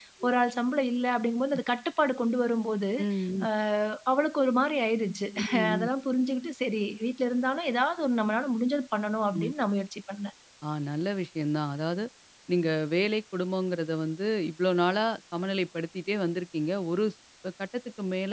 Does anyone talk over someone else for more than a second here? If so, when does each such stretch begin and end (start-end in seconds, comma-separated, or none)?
none